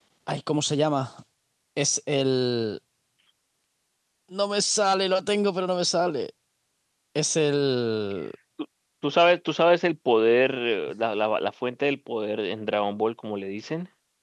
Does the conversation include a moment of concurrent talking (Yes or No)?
No